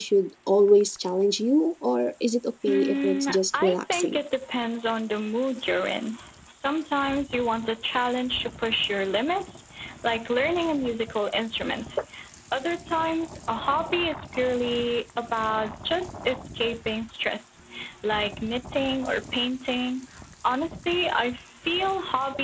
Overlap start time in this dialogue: 2.7 s

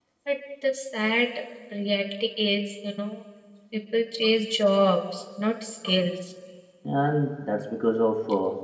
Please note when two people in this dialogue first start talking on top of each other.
none

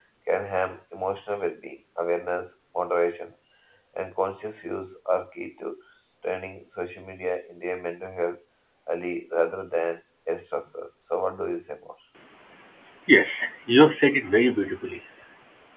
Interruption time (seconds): none

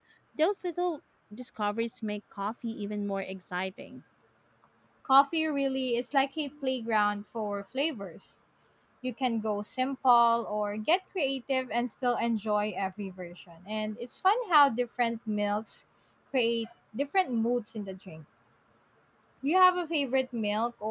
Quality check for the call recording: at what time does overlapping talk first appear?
none

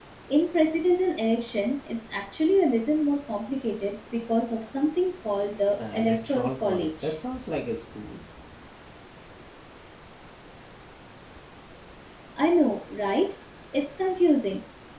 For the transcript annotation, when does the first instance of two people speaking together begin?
5.8 s

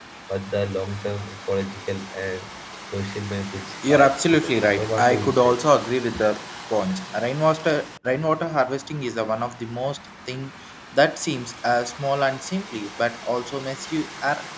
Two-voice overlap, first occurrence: 3.8 s

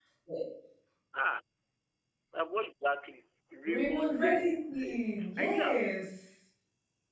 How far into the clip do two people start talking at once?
3.7 s

